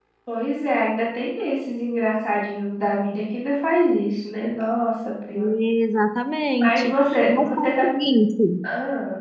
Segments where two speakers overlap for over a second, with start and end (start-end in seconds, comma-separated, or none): 6.6-7.8